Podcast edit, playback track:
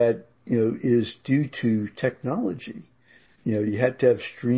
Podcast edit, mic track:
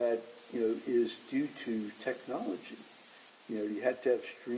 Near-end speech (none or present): none